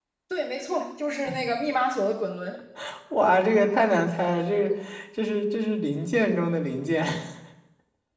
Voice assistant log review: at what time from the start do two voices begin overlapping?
none

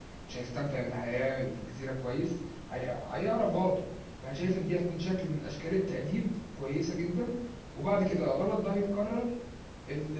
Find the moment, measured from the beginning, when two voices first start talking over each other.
none

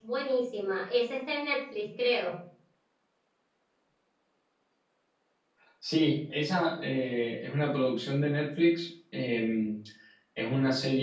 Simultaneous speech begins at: none

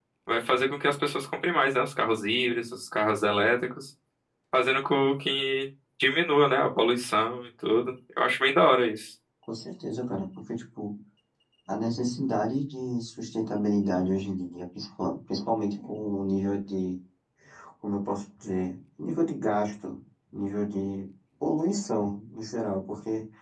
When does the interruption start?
none

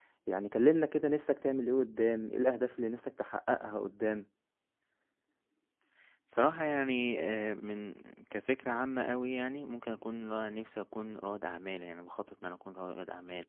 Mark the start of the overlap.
none

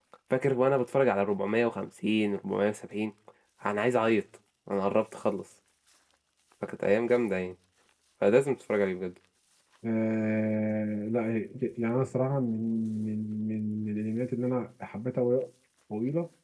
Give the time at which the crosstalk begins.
none

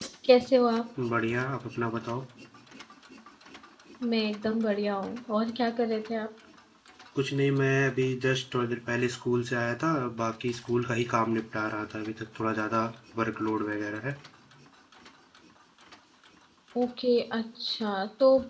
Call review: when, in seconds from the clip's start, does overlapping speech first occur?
none

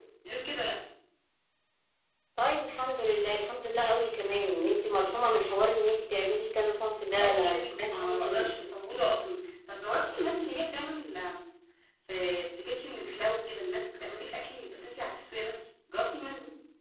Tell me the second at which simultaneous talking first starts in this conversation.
7.2 s

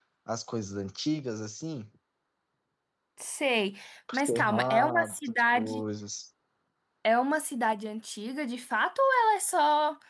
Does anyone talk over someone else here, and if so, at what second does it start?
4.1 s

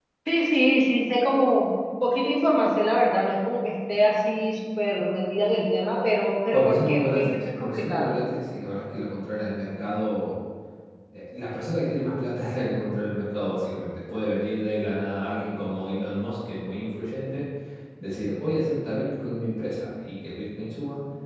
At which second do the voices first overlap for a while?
6.5 s

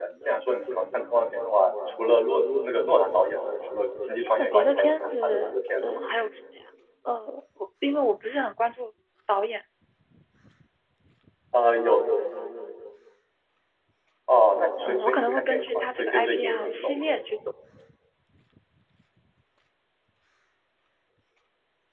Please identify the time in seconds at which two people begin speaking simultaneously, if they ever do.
4.4 s

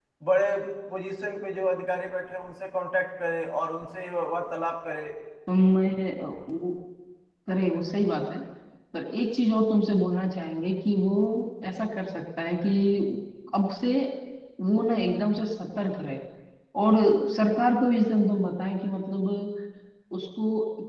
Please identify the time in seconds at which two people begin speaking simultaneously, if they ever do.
none

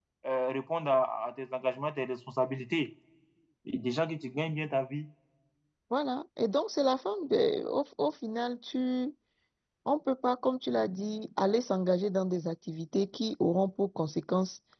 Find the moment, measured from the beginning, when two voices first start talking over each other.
none

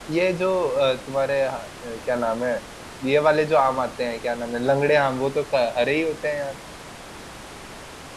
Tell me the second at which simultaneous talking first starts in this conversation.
none

